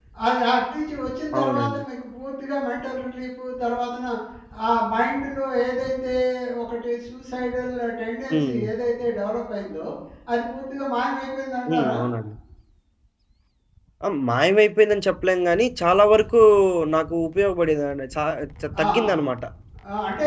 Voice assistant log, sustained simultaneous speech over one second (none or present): none